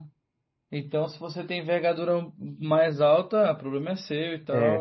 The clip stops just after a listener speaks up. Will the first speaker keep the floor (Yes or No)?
No